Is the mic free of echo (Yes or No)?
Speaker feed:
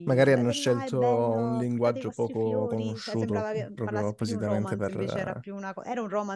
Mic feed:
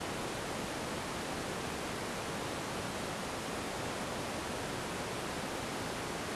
Yes